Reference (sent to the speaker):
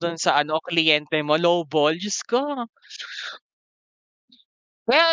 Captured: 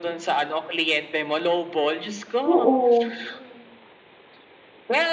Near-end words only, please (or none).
Oo.